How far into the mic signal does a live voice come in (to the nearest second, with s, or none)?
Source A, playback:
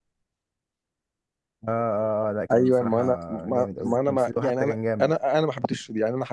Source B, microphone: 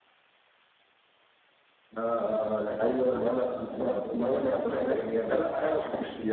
none